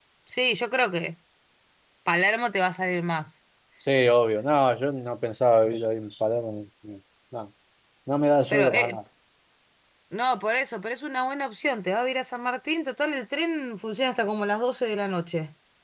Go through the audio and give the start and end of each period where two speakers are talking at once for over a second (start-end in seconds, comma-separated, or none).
none